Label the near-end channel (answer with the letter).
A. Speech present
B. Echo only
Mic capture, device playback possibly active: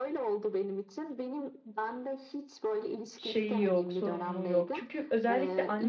A